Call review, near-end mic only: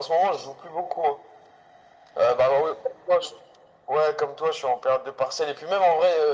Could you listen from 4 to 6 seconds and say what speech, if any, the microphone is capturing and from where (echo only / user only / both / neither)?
echo only